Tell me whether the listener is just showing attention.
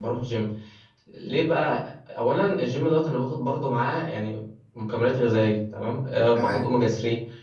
Yes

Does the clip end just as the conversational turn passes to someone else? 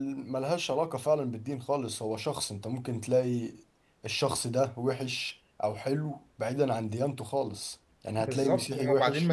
Yes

